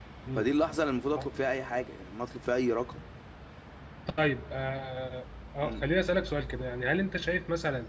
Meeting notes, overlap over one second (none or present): none